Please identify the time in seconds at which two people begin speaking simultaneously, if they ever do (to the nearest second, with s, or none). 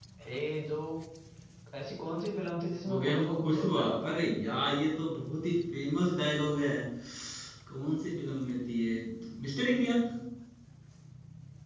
3 s